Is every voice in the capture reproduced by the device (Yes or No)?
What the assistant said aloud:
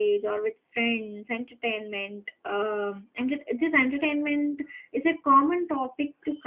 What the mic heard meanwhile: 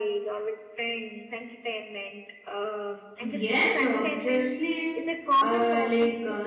No